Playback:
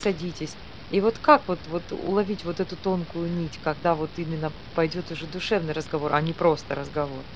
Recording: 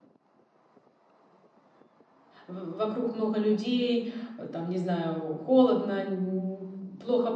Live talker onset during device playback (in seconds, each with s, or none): 2.4 s